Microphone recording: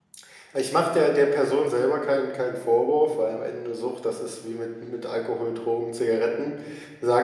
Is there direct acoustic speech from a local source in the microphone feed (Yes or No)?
Yes